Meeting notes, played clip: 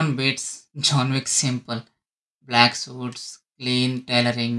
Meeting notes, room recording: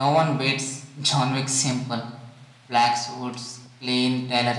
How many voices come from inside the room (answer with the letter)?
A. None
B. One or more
A